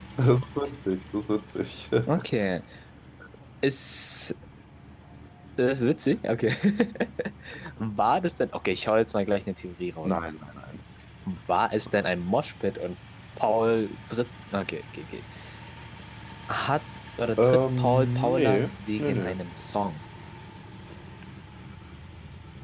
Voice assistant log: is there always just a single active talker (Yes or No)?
No